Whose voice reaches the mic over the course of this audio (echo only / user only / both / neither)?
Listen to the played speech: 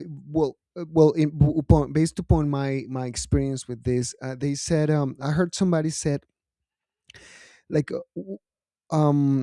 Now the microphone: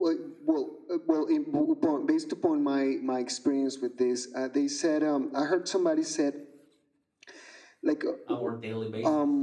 both